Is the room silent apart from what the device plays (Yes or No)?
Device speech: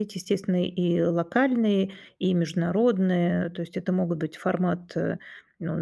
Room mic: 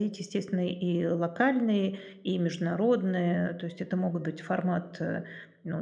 Yes